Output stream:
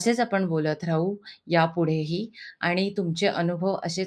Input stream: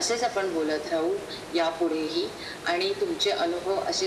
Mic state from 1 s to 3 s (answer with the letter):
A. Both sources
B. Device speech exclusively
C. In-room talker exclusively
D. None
B